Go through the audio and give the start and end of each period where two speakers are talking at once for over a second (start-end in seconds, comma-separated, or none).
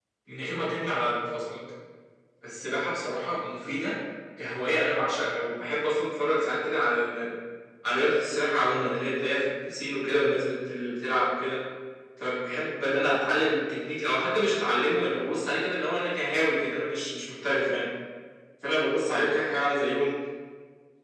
none